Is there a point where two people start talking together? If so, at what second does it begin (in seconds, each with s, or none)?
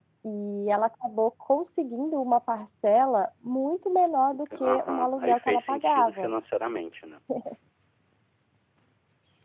4.6 s